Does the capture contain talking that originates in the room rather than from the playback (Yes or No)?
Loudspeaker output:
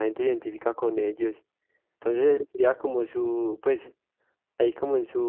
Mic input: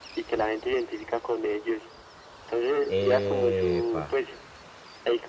Yes